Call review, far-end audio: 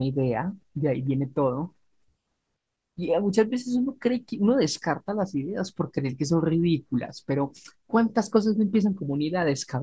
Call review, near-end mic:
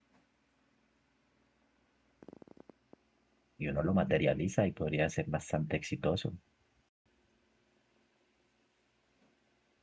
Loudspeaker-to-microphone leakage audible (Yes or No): No